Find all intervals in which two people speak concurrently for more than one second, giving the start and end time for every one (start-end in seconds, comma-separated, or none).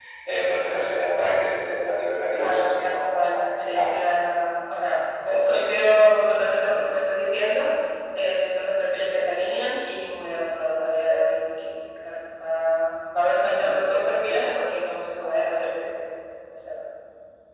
2.4-3.9